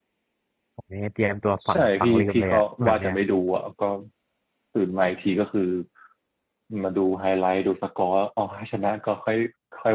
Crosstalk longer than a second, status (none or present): present